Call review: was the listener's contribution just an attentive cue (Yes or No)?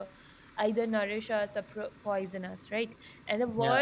Yes